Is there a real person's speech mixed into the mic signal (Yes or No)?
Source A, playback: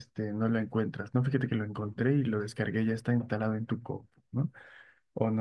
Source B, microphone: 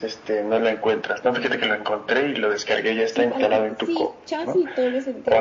Yes